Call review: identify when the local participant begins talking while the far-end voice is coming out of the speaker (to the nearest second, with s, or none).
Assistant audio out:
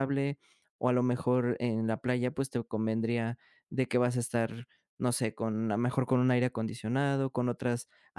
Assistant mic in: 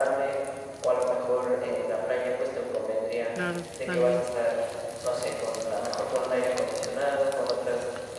3 s